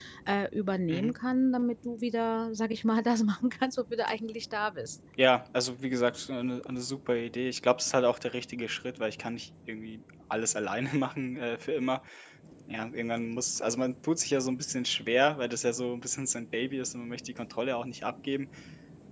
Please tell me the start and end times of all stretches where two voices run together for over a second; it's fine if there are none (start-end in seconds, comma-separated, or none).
none